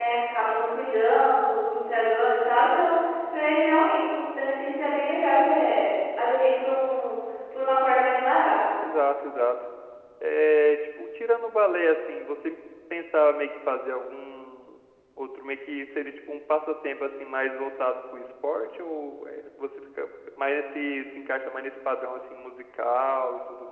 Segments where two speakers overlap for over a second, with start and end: none

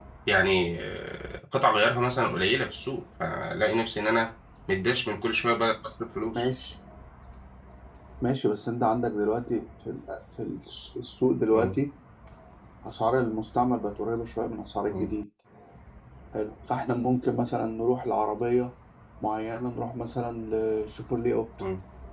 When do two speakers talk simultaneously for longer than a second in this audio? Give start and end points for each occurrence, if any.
none

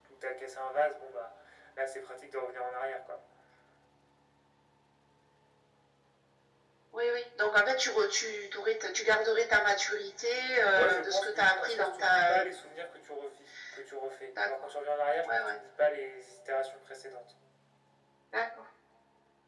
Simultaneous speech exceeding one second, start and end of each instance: 10.7-12.4

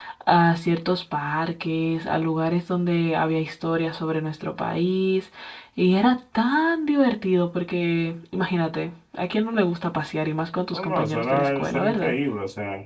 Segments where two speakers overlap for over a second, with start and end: 10.7-12.1

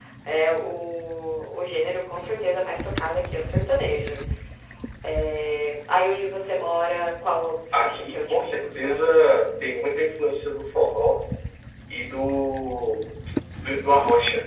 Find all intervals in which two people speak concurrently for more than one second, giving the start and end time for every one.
7.7-9.4

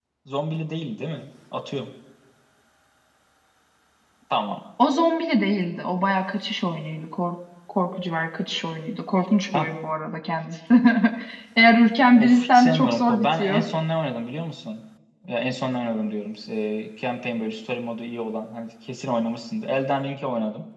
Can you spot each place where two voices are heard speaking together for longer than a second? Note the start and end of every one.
12.2-13.7

